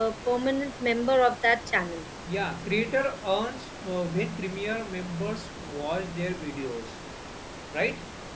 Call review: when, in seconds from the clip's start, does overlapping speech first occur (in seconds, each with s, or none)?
none